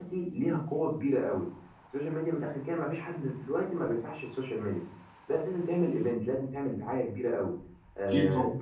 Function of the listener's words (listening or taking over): listening